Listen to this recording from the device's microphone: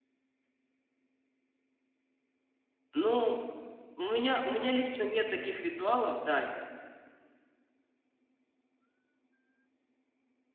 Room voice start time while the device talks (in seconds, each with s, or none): 2.9 s